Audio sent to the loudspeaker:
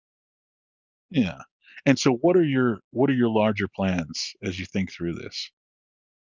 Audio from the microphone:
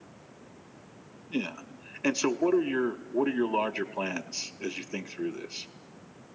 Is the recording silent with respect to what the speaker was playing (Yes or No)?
No